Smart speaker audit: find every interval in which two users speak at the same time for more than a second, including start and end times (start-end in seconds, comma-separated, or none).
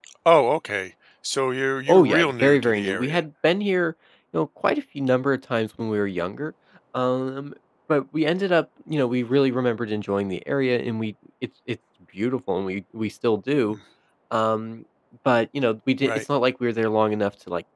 1.9-3.2